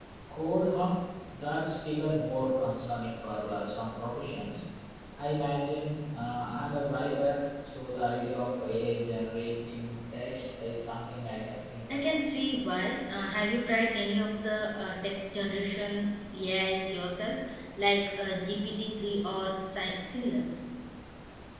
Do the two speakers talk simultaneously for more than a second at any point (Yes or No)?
No